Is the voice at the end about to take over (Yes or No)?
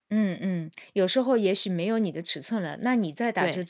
No